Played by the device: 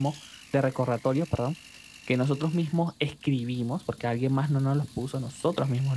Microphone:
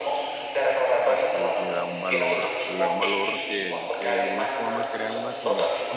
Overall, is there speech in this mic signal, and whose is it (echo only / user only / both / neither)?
both